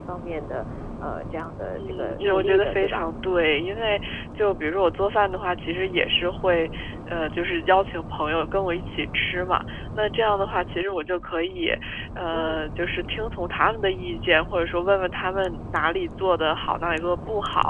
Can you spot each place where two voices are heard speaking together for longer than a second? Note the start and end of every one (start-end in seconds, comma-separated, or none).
1.8-3.0